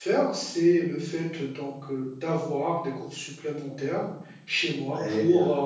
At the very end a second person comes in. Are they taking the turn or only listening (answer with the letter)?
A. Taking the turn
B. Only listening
B